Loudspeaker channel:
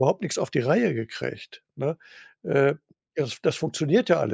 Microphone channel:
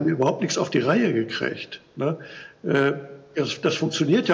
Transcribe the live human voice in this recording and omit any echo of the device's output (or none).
none